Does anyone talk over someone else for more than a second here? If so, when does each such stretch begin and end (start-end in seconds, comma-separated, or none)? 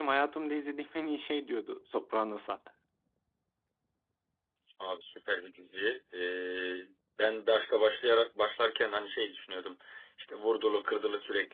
none